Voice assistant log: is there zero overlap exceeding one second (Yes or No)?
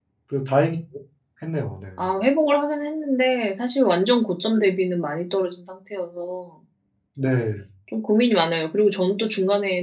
Yes